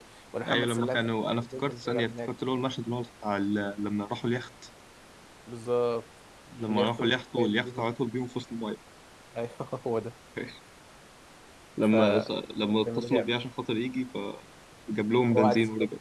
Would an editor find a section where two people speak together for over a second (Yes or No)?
Yes